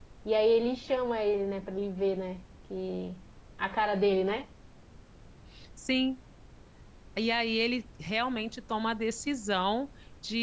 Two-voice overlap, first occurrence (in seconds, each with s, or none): none